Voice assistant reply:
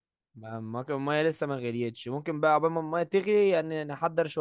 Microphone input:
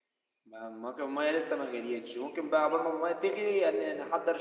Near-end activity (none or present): none